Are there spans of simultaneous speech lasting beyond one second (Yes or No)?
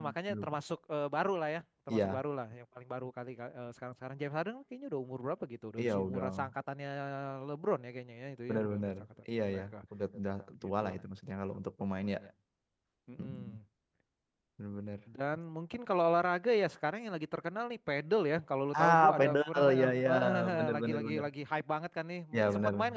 Yes